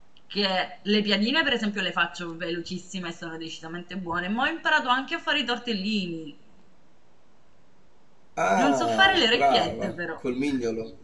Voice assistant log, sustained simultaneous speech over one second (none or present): present